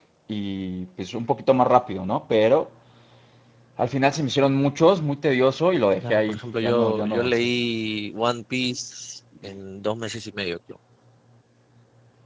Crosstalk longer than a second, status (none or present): present